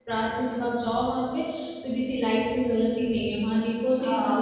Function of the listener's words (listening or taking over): taking over